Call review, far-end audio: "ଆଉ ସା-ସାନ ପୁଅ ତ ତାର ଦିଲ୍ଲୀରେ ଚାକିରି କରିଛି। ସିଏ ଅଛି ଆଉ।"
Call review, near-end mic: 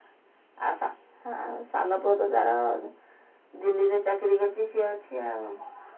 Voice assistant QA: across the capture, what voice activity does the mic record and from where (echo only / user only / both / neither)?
echo only